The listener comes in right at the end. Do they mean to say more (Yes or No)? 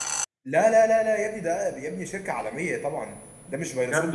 No